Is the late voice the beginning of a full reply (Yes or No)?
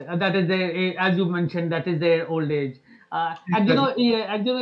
No